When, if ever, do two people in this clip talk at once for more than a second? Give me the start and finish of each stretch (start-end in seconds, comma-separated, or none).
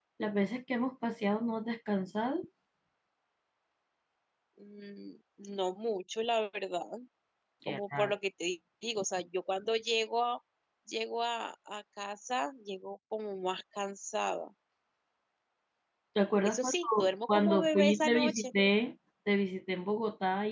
16.4-18.5